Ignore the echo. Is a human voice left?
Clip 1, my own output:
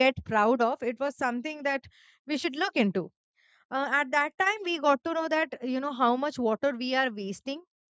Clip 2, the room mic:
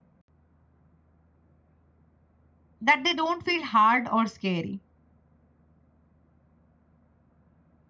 Yes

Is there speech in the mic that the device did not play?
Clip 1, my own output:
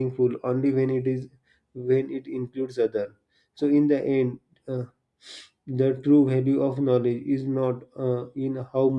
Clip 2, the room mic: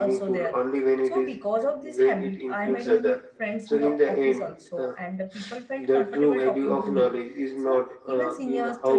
Yes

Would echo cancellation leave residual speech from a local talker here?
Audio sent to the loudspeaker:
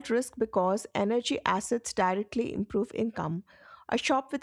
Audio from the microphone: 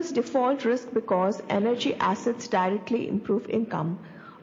No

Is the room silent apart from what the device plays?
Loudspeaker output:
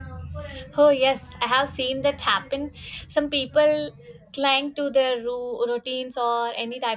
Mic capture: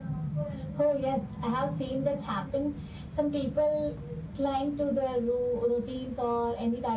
Yes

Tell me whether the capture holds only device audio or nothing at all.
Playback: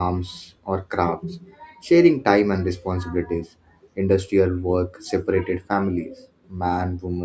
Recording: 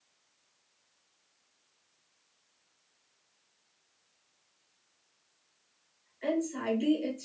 No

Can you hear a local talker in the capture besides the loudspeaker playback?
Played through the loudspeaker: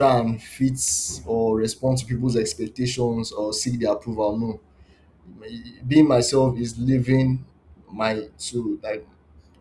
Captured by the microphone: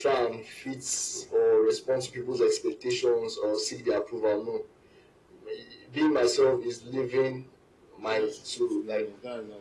Yes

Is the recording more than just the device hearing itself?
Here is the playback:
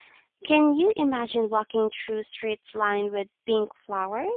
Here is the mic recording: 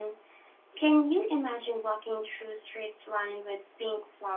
No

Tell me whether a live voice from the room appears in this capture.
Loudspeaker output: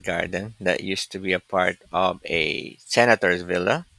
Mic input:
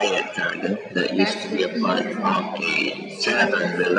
Yes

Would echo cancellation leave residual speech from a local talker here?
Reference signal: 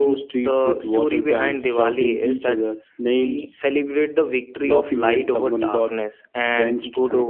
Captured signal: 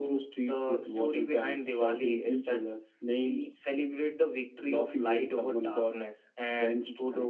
No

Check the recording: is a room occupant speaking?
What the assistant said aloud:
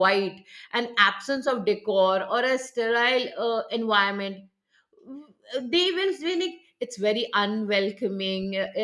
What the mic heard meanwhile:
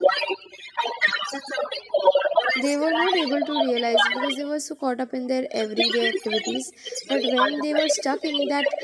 Yes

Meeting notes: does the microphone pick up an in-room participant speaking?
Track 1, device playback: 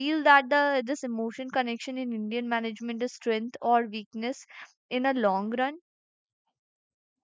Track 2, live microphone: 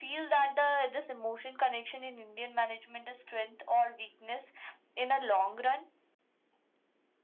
No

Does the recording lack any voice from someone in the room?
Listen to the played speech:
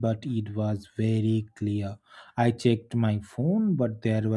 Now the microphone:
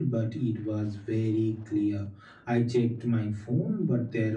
Yes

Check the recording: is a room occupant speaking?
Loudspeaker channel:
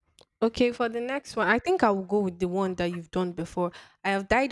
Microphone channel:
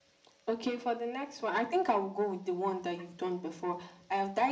No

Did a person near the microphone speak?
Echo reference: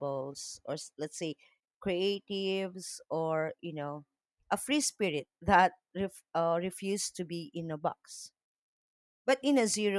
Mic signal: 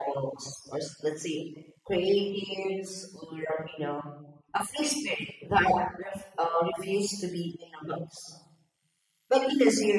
No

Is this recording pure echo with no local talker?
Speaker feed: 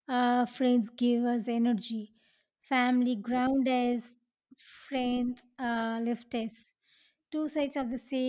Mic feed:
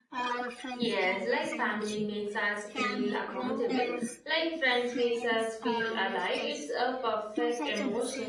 No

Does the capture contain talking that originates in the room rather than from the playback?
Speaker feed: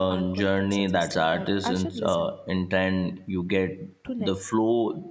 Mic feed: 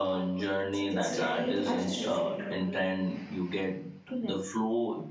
Yes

